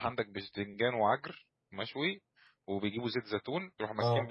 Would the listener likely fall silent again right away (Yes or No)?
Yes